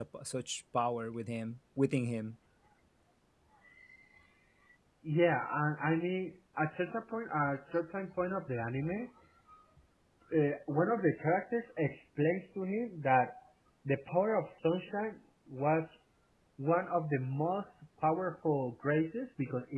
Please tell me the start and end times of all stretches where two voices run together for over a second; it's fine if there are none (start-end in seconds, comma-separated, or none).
none